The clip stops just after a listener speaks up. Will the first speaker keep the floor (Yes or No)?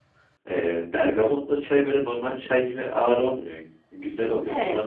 No